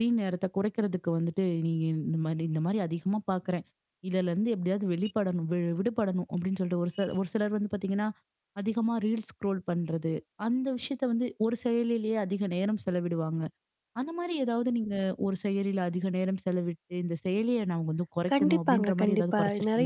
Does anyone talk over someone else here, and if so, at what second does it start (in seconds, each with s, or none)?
18.3 s